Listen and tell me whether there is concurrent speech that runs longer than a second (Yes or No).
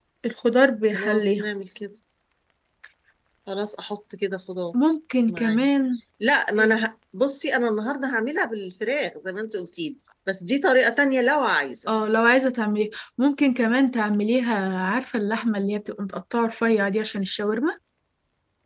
No